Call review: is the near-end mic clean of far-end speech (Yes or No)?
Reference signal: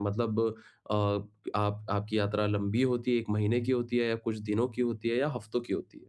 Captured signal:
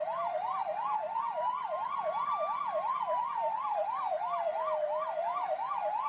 Yes